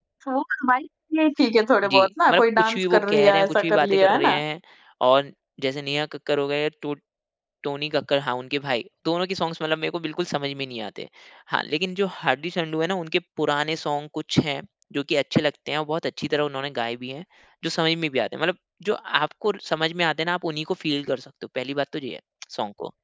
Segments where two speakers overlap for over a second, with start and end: 1.8-4.4

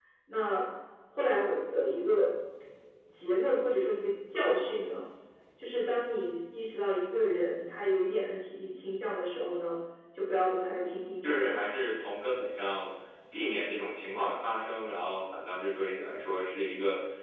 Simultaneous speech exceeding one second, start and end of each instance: none

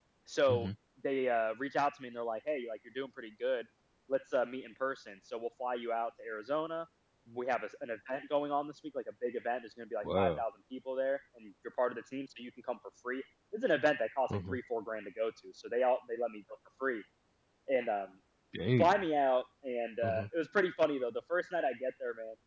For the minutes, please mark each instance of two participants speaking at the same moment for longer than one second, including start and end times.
none

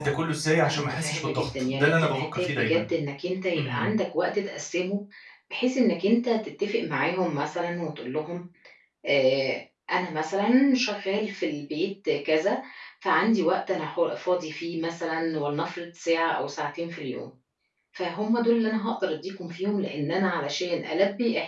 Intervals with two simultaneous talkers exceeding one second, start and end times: 0.6-2.8

